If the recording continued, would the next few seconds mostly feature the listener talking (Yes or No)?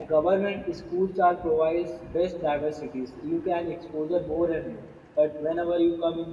No